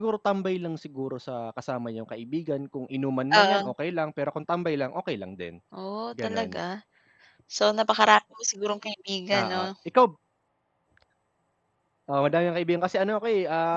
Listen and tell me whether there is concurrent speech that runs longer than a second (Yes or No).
No